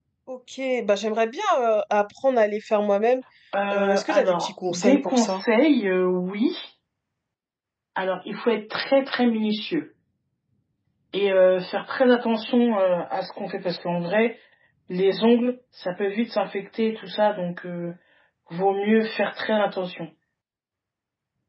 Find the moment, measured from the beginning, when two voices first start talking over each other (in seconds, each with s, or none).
3.7 s